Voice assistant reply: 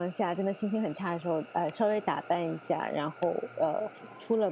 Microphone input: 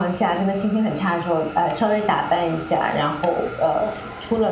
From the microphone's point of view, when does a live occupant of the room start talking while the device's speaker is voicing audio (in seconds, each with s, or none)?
none